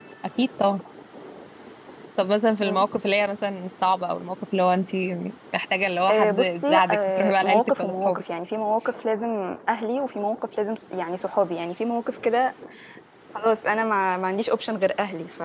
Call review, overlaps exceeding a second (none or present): present